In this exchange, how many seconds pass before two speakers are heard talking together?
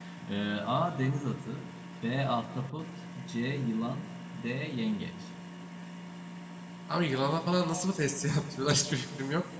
none

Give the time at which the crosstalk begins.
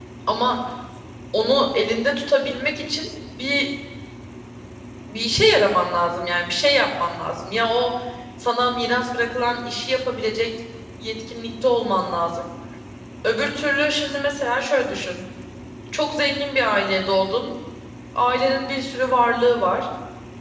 none

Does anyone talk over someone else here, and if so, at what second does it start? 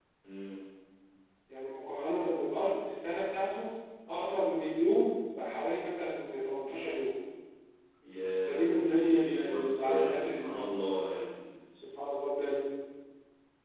8.5 s

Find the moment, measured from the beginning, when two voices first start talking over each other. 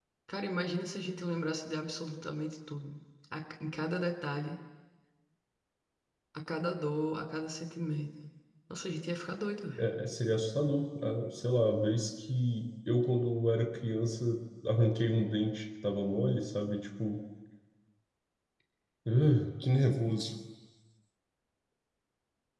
none

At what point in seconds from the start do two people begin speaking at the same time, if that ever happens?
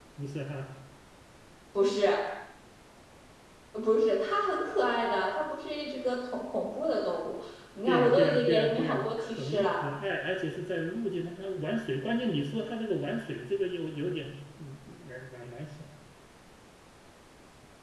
7.9 s

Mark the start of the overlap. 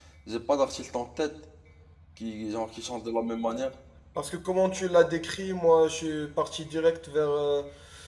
none

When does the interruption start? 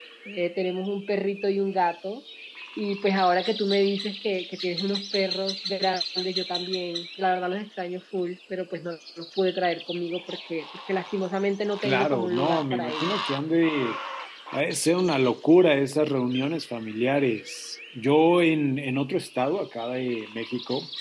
11.8 s

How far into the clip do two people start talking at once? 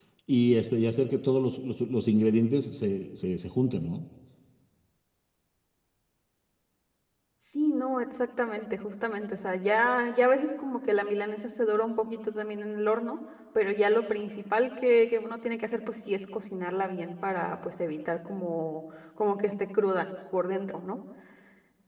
none

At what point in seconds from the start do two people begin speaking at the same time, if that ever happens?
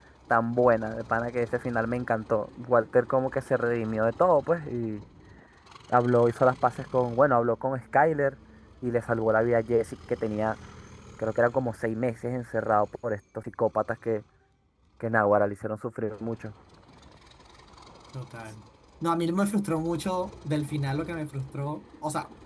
none

